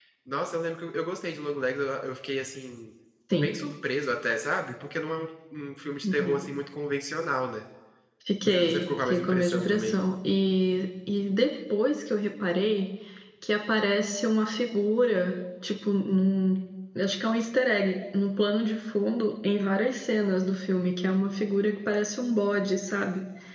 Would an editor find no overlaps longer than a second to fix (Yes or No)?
No